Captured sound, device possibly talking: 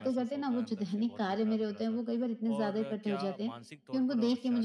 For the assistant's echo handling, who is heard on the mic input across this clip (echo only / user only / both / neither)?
both